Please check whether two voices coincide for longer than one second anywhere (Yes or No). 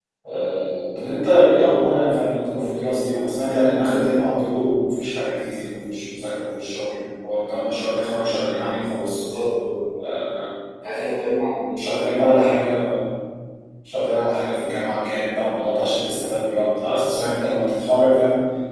No